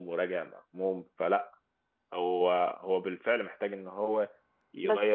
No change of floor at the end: Yes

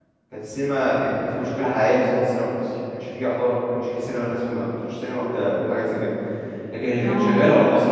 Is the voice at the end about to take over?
No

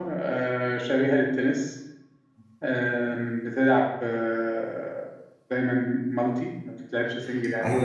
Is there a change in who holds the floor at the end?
Yes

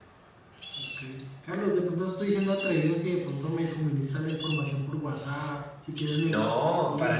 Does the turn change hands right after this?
Yes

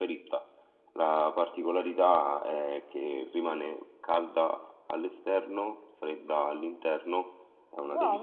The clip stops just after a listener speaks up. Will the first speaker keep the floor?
No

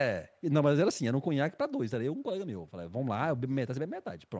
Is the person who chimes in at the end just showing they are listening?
Yes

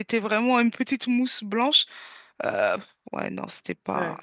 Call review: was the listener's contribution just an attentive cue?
No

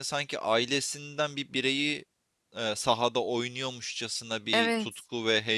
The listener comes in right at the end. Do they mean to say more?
No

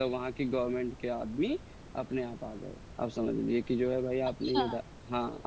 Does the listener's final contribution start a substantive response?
No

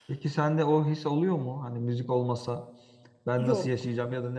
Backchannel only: Yes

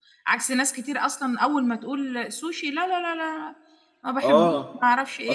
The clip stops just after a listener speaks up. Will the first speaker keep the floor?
No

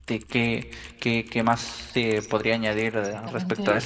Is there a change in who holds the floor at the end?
Yes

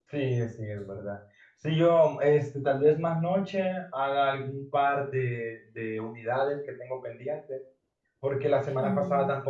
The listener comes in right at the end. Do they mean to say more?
No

